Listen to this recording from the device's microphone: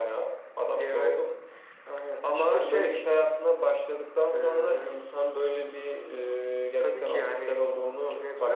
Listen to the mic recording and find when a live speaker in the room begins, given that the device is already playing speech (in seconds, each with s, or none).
none